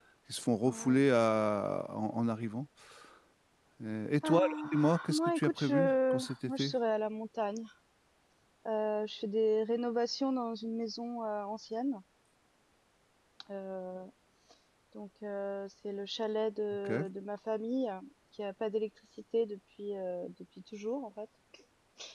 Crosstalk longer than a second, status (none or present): present